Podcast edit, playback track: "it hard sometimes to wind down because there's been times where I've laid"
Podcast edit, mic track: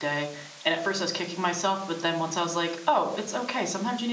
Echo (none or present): none